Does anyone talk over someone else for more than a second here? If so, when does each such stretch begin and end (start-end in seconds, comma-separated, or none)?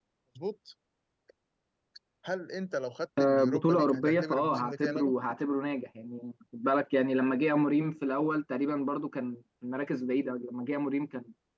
3.5-5.1